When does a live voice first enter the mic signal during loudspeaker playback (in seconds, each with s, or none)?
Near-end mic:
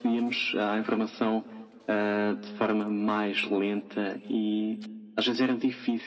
none